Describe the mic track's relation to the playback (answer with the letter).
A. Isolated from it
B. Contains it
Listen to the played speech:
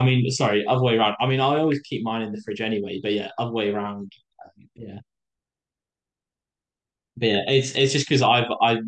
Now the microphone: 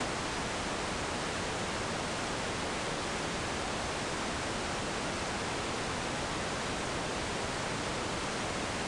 A